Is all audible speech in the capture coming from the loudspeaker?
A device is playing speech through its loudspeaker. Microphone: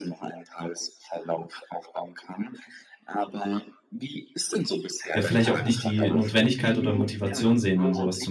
No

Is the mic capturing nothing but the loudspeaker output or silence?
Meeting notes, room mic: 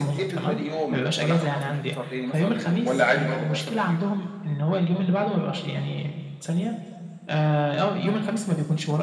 Yes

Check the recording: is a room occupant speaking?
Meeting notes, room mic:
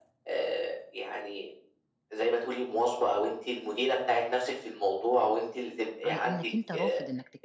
Yes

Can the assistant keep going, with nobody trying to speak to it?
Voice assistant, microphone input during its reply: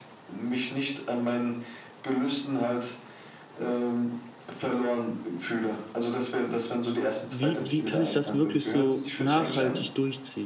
No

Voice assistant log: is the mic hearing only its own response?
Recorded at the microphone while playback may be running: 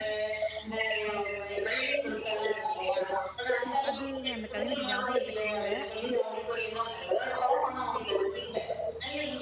No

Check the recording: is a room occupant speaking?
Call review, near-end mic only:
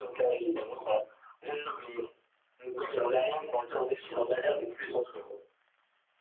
No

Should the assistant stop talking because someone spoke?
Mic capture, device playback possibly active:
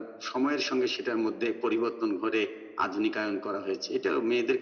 No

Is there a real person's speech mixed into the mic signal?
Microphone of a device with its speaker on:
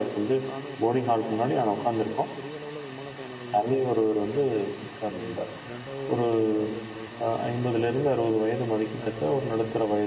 Yes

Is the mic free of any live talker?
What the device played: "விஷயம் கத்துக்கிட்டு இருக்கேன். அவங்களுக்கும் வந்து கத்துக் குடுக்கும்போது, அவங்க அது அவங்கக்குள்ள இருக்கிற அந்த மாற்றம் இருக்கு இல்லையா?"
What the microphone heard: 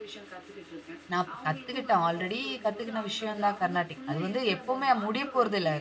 No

